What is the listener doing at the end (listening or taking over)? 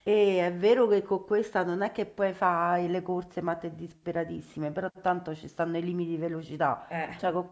listening